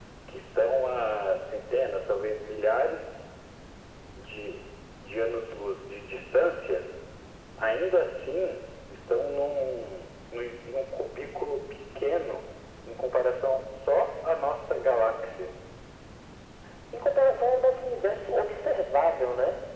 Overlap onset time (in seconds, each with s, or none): none